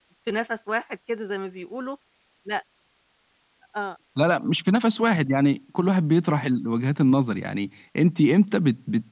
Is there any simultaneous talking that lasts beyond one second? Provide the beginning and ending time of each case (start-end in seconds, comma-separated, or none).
none